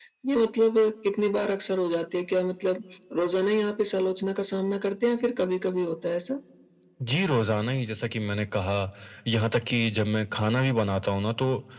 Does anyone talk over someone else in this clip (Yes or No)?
No